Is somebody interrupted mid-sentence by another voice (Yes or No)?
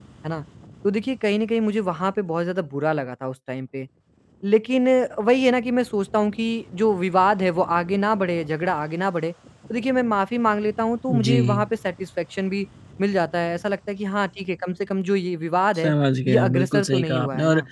Yes